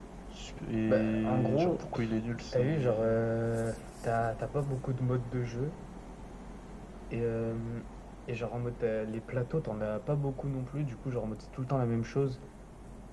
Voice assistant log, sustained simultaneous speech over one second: present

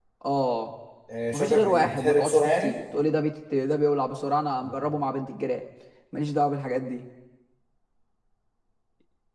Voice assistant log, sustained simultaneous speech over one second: present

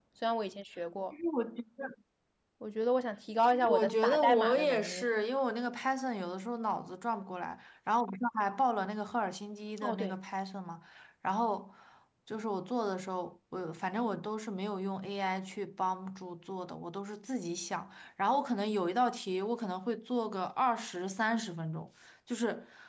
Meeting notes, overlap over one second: present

